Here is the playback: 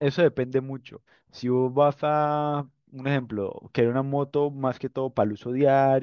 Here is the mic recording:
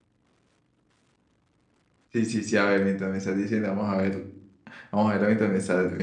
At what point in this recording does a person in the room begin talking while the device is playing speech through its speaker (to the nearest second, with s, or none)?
2 s